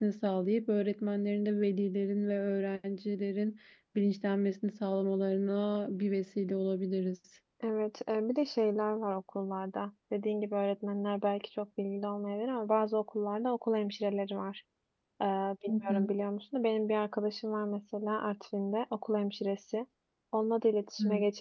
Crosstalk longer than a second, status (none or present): none